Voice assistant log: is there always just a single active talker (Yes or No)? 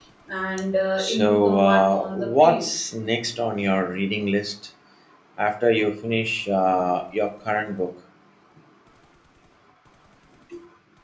No